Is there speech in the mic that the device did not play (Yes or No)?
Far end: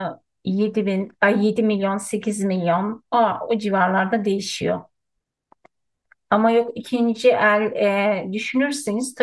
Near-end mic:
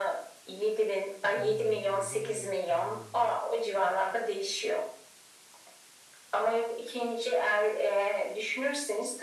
Yes